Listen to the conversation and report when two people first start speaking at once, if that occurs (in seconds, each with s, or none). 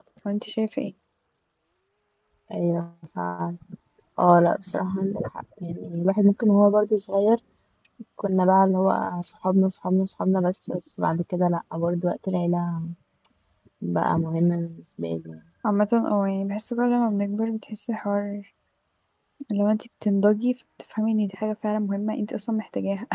none